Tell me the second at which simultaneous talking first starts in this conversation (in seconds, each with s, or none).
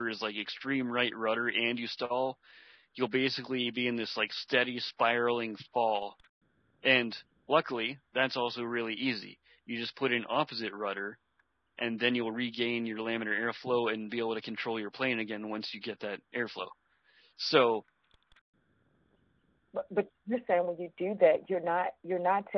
none